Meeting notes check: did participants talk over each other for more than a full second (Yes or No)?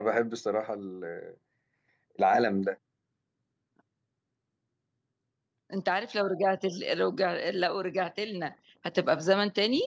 No